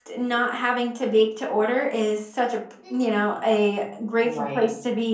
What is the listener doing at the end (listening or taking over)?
listening